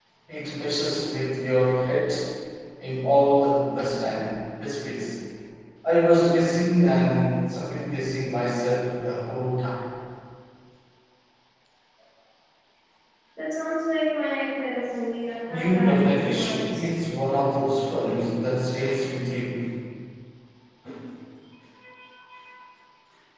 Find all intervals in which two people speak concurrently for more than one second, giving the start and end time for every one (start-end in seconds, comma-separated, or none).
15.5-16.9